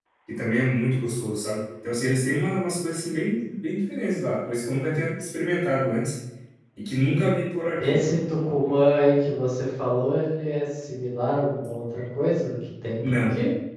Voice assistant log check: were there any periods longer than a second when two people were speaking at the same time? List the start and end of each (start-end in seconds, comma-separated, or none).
none